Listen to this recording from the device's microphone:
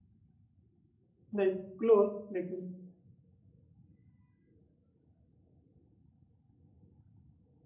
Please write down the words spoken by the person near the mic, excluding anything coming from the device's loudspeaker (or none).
नहीं क्लोज लेकिन